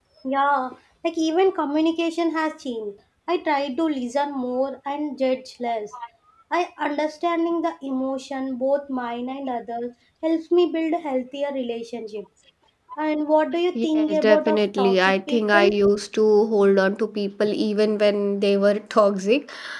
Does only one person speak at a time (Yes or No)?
No